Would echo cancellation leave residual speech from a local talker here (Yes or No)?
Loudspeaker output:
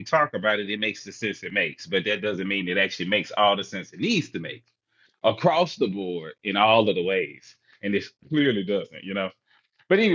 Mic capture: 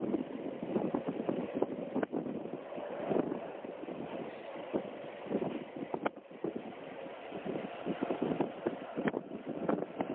No